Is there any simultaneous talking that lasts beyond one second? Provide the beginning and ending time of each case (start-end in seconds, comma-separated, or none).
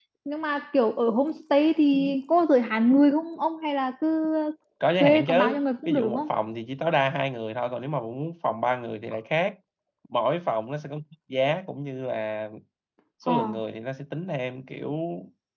5.0-6.2